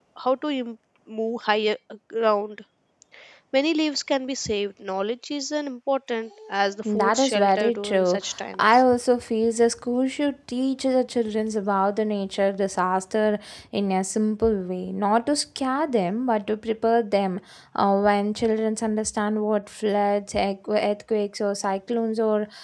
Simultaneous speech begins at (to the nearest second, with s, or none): 7 s